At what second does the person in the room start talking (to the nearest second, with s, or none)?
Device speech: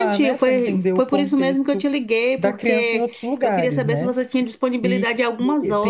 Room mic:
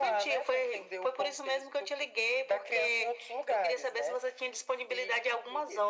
none